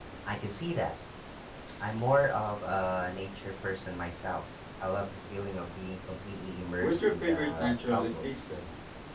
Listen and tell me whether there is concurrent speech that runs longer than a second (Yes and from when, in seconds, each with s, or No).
Yes, from 6.8 s